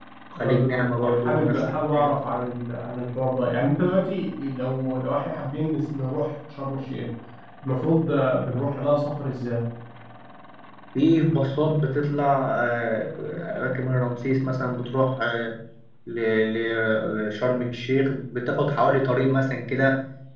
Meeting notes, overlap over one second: present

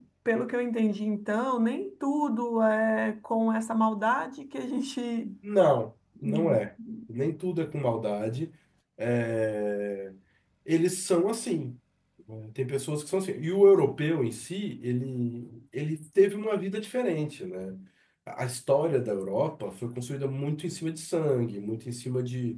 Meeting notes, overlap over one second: none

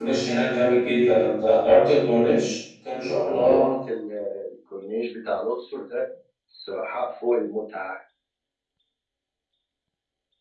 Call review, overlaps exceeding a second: none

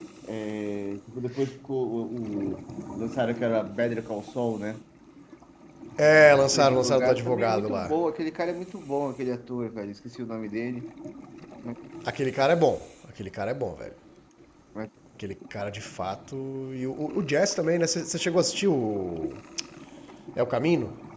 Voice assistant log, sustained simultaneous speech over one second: present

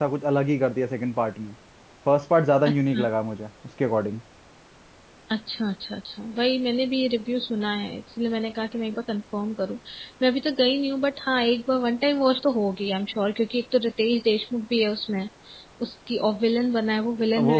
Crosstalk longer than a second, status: none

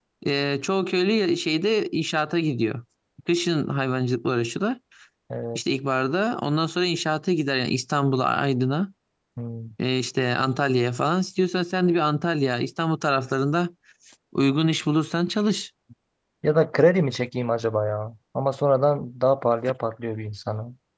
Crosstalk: none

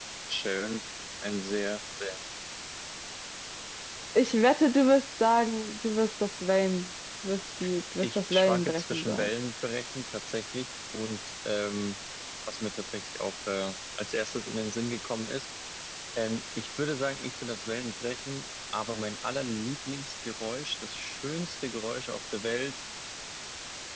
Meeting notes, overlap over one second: present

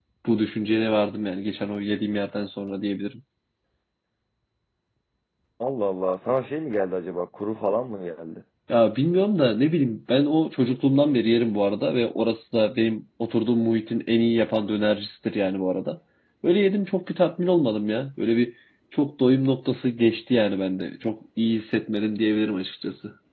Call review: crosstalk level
none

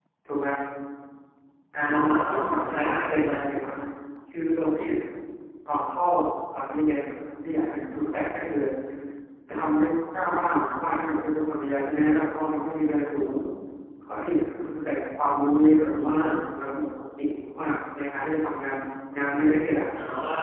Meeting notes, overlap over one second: present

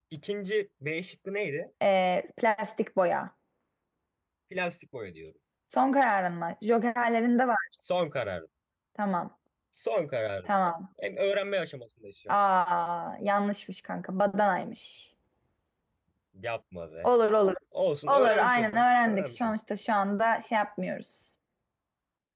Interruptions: present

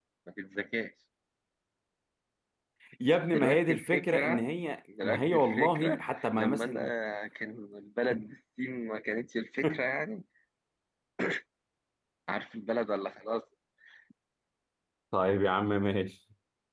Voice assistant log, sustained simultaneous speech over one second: present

